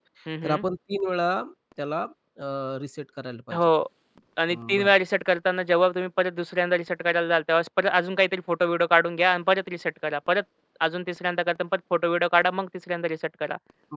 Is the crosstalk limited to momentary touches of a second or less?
Yes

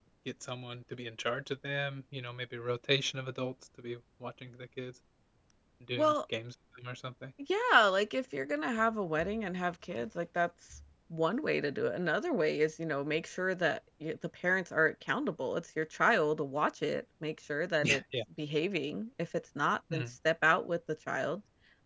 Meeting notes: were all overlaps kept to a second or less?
Yes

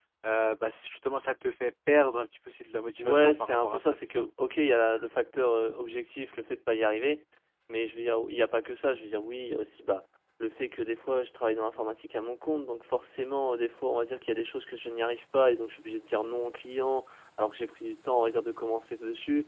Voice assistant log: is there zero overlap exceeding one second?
No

